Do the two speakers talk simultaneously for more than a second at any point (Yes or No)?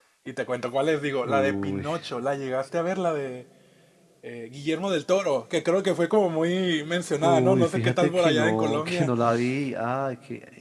Yes